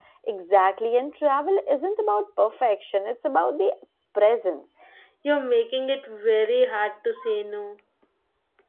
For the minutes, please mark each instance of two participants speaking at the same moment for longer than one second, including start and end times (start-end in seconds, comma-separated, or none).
none